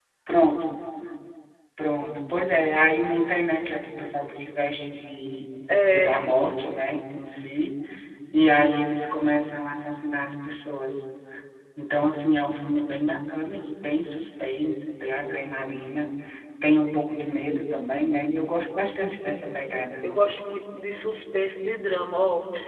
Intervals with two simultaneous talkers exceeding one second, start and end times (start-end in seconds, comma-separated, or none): none